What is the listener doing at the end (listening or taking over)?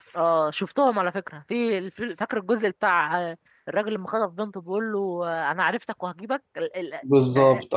taking over